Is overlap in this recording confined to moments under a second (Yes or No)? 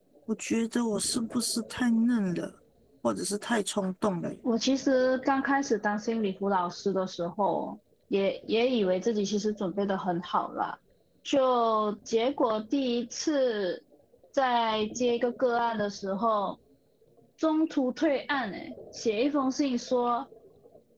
Yes